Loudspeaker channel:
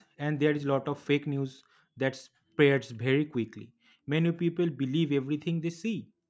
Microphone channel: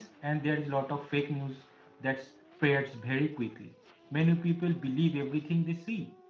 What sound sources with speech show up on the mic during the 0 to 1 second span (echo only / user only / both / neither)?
echo only